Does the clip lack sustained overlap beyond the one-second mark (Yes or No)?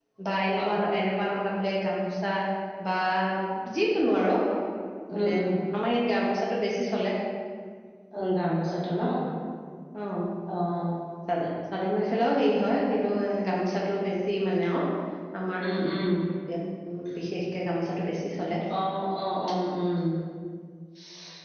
Yes